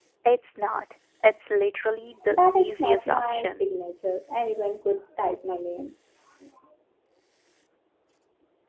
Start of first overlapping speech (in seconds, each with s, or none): 2.3 s